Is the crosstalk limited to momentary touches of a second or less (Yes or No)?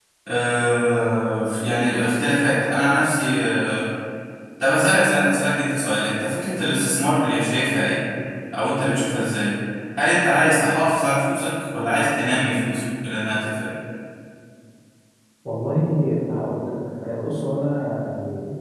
Yes